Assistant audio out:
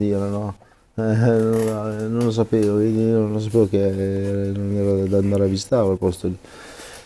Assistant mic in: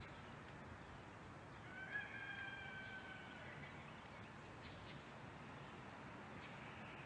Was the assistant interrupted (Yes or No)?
No